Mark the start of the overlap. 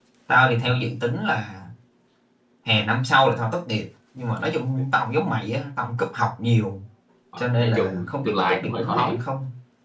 7.4 s

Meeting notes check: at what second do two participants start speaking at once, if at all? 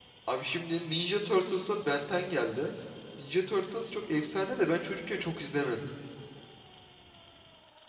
none

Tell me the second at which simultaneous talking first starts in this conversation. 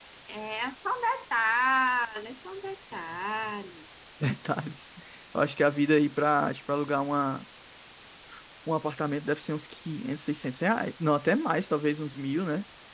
none

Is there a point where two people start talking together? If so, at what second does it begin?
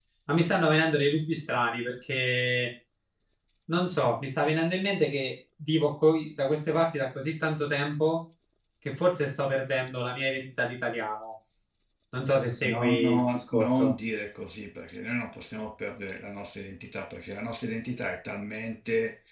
12.6 s

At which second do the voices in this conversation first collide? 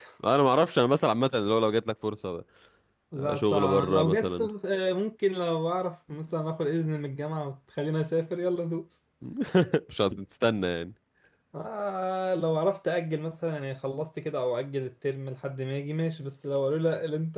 3.2 s

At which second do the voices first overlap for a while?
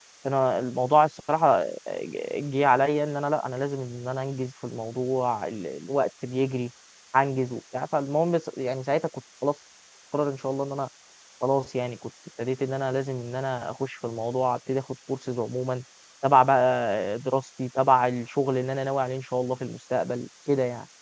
none

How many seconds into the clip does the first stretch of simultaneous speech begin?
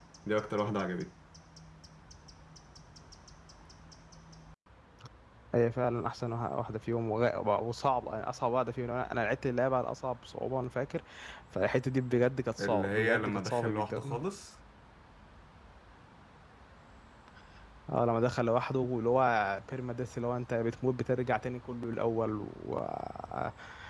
12.6 s

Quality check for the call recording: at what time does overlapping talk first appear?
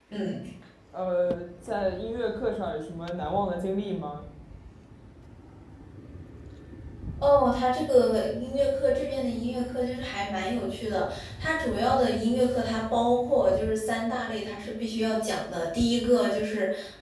none

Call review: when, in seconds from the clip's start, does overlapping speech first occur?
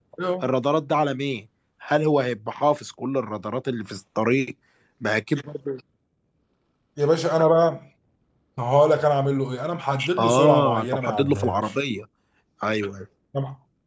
10.0 s

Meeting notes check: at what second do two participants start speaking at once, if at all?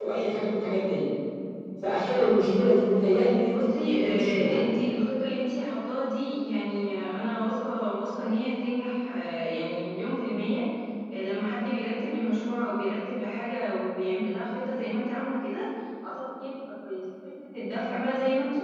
3.4 s

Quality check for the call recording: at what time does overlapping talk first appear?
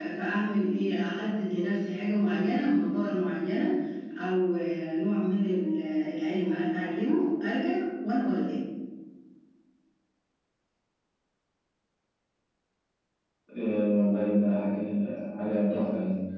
none

